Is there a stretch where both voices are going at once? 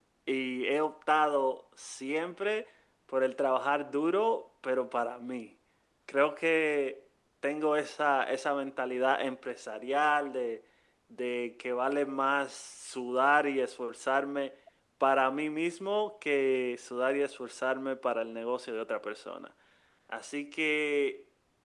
No

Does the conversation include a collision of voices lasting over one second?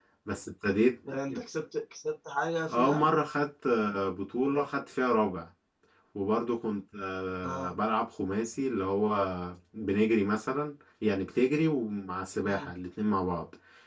No

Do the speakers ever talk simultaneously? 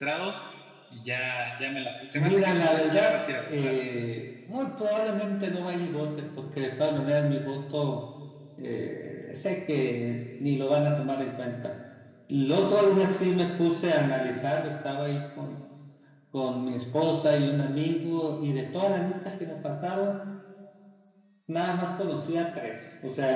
Yes, from 2.1 s

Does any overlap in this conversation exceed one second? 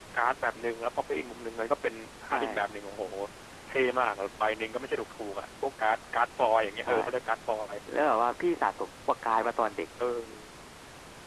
No

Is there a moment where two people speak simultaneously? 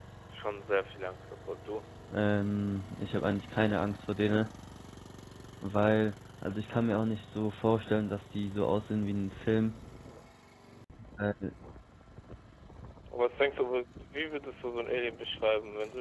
No

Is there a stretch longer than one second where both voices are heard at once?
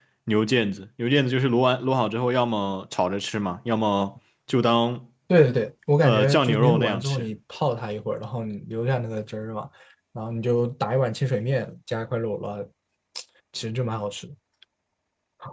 Yes, from 6.0 s

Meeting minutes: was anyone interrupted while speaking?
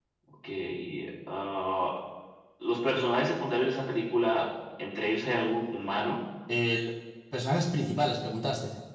No

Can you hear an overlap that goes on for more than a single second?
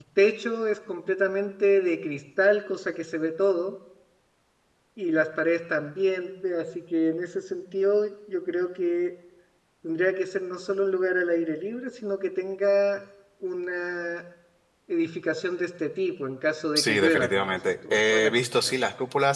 Yes, from 16.8 s

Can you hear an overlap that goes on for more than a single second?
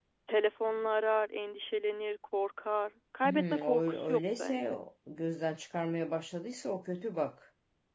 Yes, from 3.2 s

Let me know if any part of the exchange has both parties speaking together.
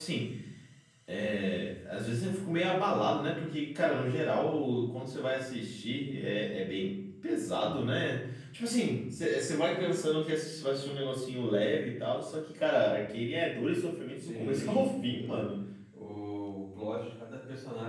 Yes, from 14.2 s

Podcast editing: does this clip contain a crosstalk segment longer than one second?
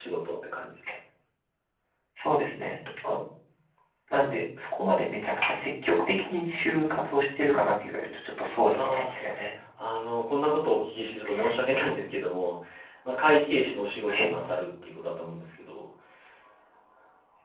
No

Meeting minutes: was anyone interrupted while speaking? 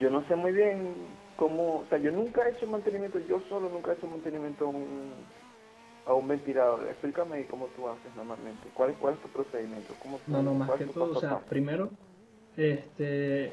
Yes, from 10.3 s

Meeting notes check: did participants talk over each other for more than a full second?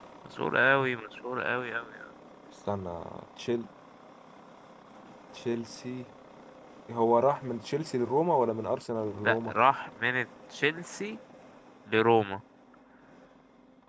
No

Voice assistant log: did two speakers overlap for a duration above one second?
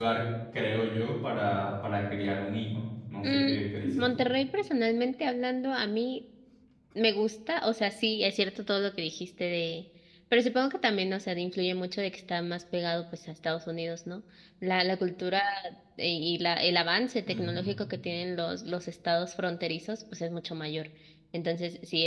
No

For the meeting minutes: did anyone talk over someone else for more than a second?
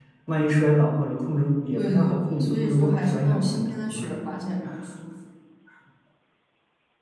Yes, from 1.7 s

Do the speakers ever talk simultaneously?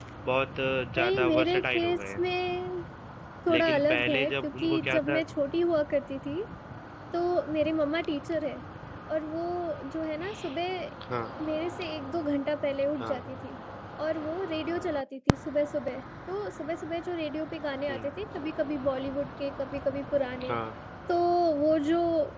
Yes, from 1.0 s

